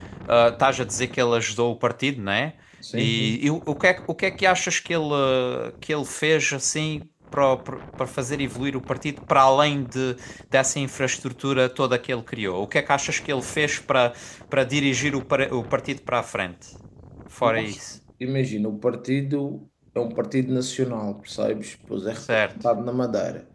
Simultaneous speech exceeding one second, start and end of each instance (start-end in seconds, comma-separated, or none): none